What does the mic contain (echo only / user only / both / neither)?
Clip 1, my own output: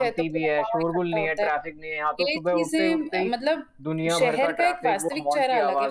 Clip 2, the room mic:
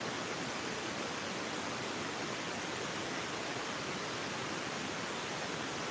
neither